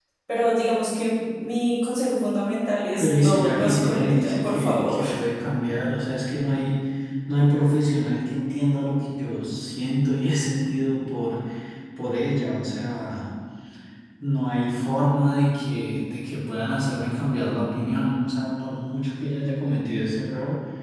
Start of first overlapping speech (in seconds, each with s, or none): 3.0 s